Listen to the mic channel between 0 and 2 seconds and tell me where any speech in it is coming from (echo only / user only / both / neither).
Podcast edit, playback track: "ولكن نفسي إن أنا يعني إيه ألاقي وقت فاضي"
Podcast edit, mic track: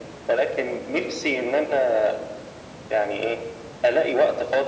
echo only